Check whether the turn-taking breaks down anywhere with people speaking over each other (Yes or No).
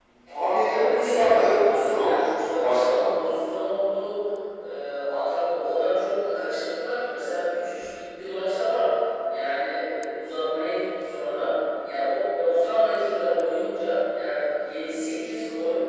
Yes